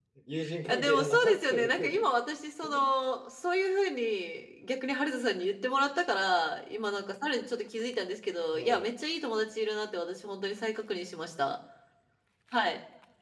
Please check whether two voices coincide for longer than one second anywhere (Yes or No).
Yes